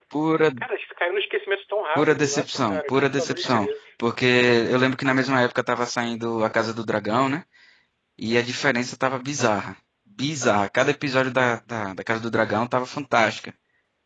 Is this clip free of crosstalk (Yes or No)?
No